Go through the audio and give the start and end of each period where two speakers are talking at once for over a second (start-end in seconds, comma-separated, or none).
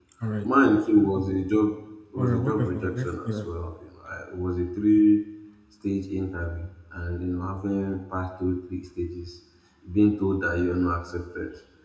2.2-3.5